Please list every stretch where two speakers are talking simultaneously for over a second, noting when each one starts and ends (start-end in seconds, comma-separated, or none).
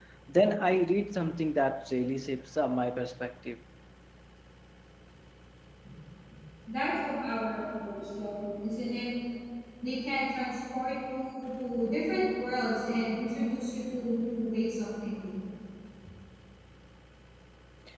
none